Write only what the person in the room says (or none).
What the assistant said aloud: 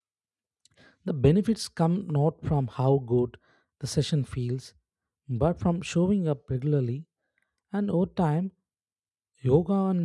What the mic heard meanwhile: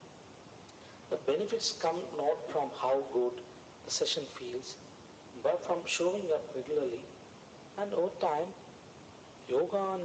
none